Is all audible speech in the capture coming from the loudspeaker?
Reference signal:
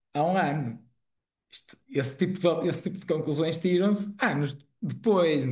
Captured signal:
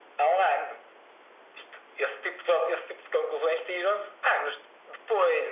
Yes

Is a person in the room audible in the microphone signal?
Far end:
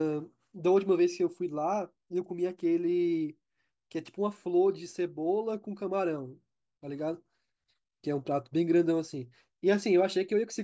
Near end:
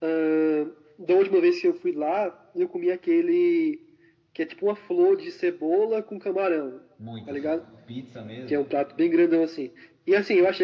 Yes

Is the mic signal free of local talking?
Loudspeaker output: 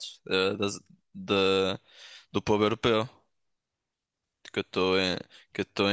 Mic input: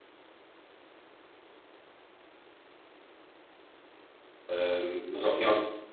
No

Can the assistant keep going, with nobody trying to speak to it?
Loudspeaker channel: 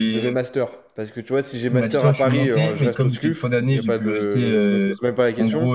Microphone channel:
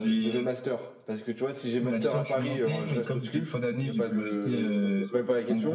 Yes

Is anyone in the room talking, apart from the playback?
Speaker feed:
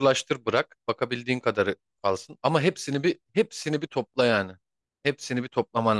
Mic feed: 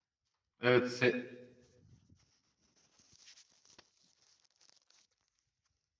Yes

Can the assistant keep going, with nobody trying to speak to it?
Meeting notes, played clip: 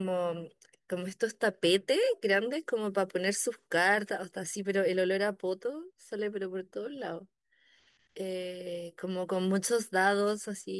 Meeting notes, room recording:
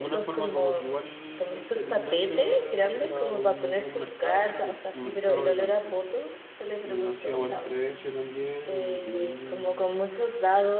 No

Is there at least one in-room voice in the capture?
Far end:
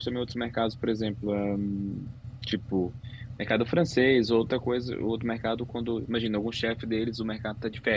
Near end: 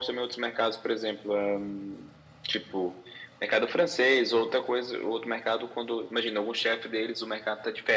No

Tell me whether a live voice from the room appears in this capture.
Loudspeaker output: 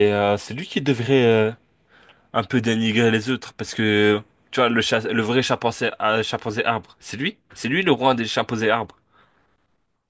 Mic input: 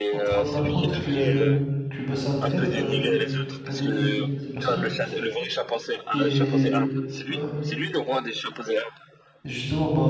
Yes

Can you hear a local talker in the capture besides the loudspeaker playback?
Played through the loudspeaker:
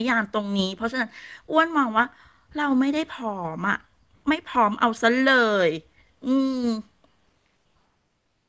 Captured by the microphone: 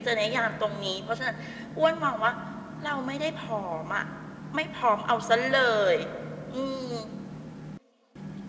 No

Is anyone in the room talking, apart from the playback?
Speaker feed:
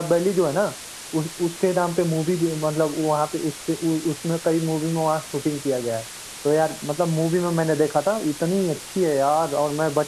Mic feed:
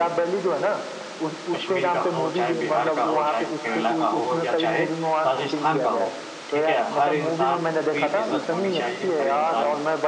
Yes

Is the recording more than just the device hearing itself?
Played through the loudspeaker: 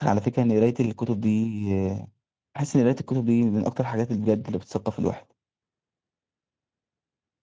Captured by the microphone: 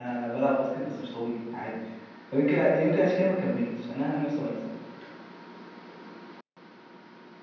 Yes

